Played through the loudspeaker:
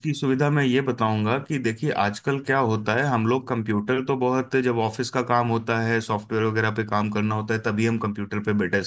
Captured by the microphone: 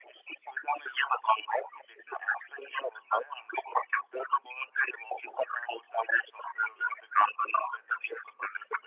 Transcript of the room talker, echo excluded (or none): none